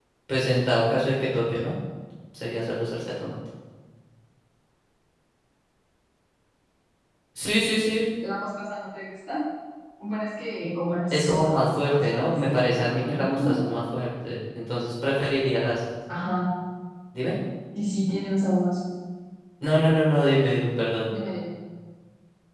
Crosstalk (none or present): present